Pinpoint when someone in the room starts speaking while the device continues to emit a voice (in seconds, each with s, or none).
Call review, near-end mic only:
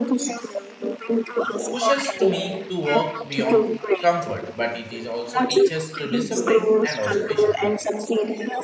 1.7 s